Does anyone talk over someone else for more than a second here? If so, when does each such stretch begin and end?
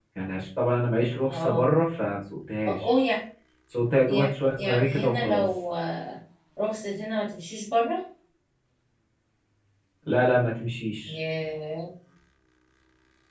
4.1-5.5

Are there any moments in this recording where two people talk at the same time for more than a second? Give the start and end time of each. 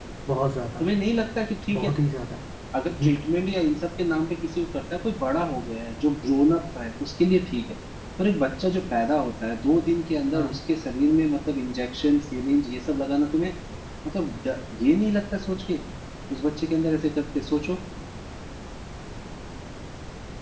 none

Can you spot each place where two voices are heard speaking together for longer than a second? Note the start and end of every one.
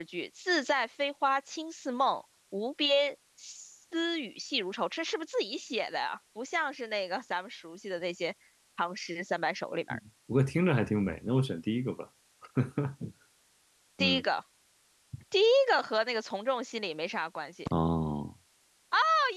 none

